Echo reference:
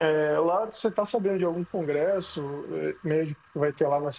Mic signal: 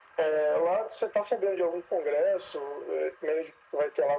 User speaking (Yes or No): No